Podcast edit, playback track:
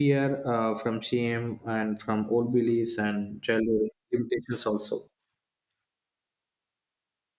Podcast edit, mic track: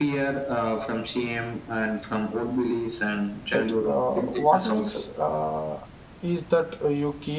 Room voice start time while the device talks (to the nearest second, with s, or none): 4 s